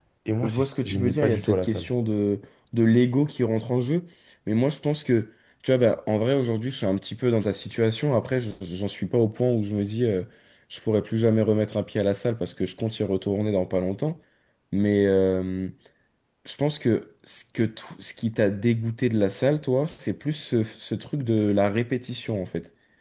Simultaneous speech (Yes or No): Yes